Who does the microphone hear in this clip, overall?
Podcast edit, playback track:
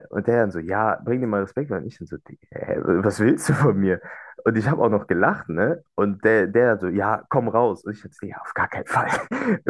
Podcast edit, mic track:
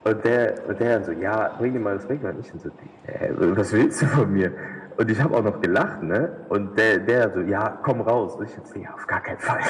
echo only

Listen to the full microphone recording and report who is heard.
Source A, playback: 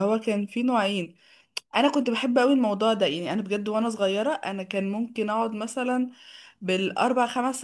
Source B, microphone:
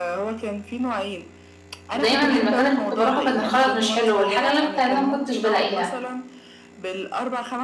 both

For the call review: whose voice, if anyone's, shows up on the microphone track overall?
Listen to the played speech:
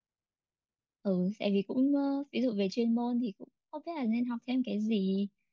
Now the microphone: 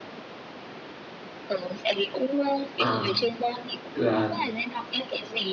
both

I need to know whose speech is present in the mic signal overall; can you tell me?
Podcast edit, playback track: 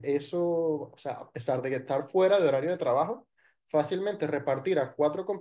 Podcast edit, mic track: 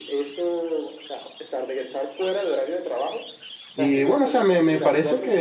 both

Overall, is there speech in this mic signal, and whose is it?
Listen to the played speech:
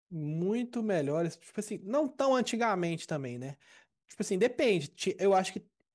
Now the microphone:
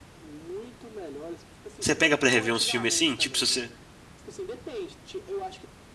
both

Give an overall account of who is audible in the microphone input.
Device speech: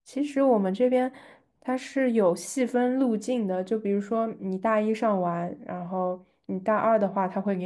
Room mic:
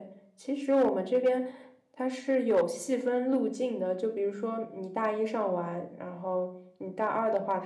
echo only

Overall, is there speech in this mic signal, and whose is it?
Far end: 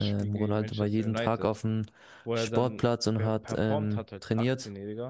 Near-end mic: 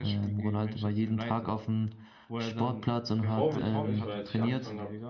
both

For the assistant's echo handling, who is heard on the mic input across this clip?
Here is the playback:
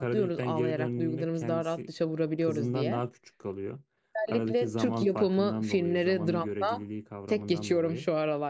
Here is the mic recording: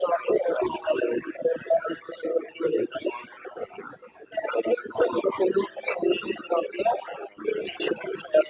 echo only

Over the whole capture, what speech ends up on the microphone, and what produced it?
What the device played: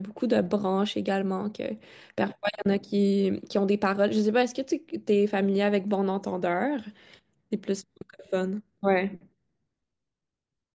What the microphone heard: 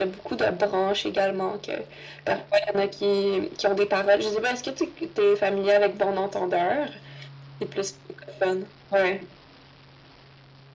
echo only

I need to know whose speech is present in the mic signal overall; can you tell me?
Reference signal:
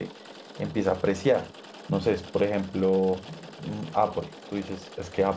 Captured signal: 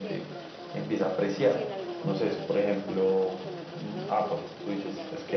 both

